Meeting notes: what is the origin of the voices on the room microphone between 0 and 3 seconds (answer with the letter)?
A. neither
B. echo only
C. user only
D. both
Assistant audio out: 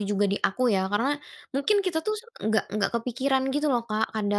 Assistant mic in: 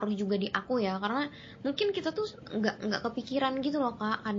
B